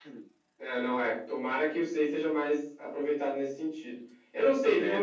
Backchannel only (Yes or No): Yes